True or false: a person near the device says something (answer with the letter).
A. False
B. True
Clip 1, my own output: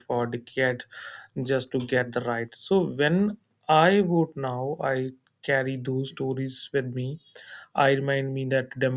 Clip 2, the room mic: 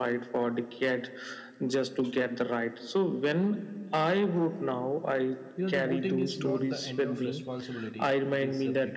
B